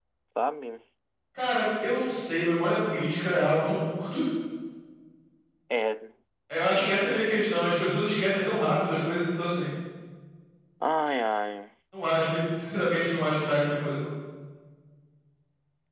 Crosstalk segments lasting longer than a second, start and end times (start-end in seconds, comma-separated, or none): none